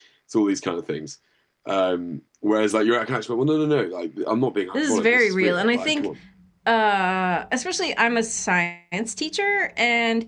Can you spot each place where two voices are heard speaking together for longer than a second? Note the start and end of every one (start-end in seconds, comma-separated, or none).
4.7-6.1